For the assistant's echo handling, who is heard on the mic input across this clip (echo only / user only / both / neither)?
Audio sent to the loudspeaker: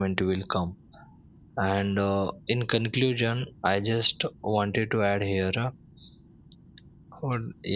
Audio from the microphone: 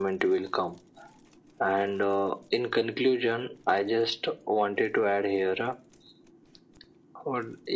echo only